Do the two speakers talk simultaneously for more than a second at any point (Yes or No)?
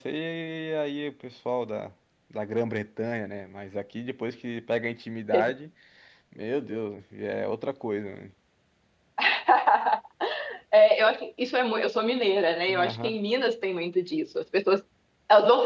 No